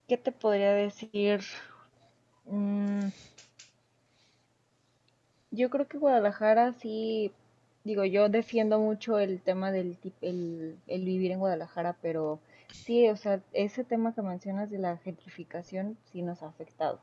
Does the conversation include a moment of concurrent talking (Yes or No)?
No